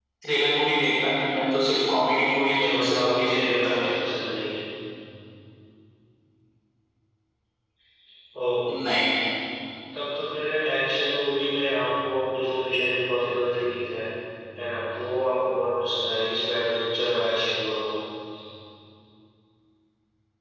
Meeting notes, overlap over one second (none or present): present